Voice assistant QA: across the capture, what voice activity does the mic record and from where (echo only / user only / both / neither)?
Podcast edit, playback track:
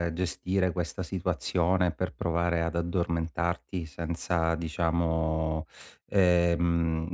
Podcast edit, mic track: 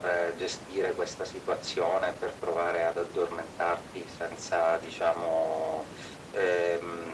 echo only